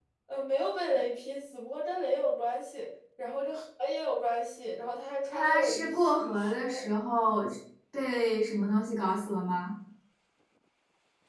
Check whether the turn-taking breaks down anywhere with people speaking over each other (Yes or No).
Yes